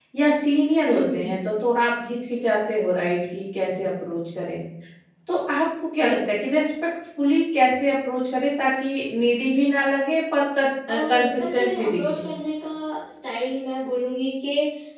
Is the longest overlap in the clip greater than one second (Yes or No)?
Yes